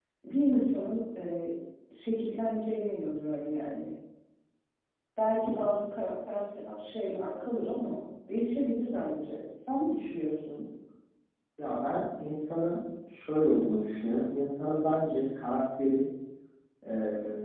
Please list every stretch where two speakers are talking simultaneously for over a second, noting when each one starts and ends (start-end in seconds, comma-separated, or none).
none